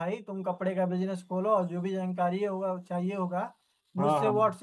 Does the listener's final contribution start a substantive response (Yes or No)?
No